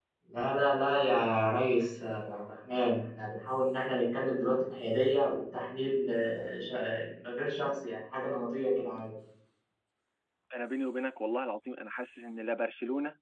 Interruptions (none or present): none